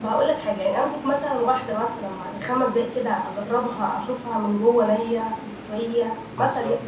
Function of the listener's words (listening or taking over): taking over